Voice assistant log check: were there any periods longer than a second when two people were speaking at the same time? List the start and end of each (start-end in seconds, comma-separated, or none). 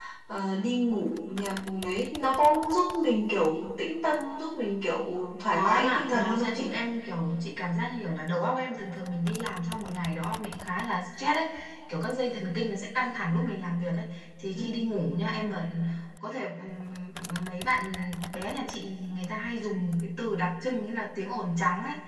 5.5-6.7